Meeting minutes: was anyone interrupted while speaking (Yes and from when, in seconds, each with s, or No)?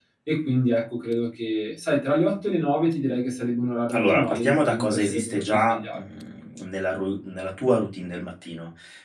Yes, from 3.9 s